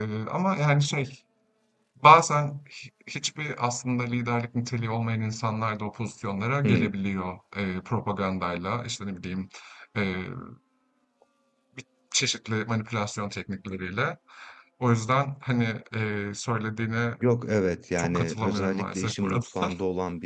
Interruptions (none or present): present